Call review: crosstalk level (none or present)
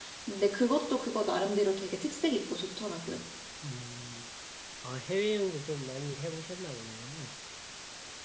none